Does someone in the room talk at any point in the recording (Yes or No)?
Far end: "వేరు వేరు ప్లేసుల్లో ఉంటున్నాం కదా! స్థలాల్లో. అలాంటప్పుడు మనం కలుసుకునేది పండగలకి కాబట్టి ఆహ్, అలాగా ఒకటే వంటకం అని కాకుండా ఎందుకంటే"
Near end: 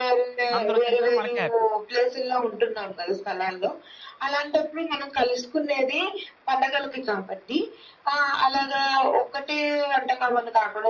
Yes